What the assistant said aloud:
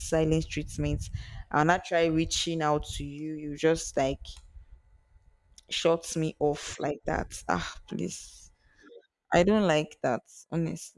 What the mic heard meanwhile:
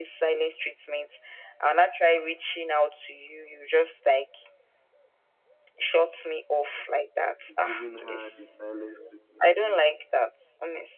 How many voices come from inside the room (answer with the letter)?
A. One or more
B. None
A